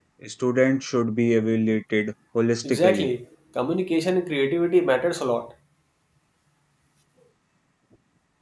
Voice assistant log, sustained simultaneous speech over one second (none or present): none